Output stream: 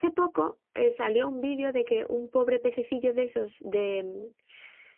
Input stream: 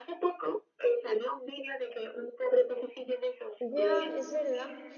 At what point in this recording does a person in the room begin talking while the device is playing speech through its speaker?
3.6 s

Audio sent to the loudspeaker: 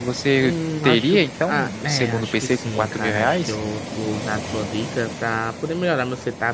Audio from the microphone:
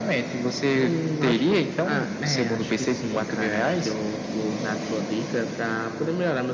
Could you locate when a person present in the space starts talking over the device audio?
none

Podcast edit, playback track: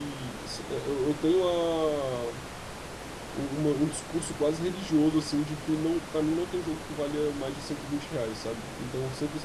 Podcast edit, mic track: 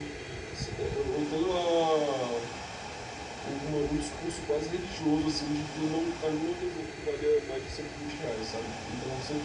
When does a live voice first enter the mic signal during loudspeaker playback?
none

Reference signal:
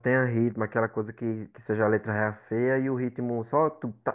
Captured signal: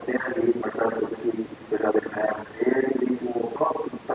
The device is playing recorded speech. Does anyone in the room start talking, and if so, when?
none

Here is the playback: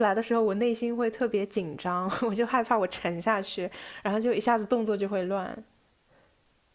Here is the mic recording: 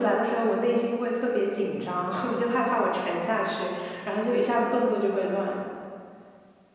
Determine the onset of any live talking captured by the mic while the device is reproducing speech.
none

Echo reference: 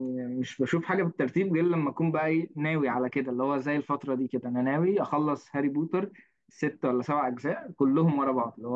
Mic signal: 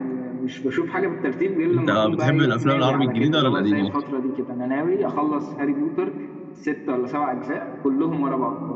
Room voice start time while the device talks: 1.7 s

